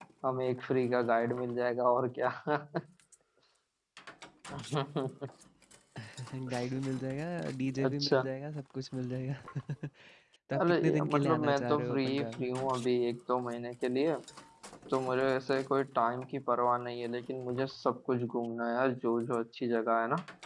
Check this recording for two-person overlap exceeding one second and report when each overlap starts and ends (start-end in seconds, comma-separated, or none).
10.6-12.5